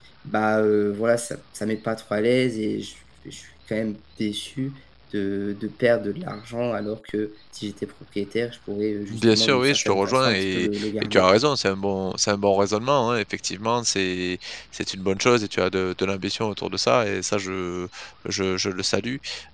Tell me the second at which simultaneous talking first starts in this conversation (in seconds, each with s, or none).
9.1 s